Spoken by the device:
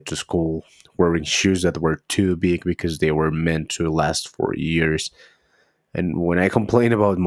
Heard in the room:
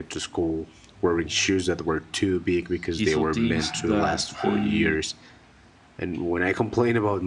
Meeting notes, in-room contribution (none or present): present